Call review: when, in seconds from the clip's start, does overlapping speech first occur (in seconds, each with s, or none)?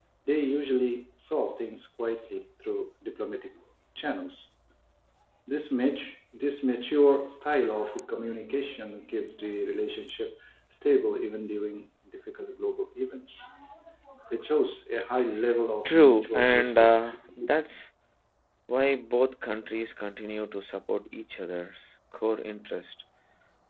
15.8 s